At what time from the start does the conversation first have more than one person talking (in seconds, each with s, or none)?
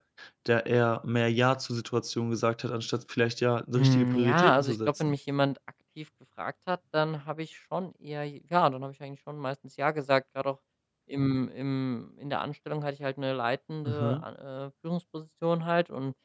3.8 s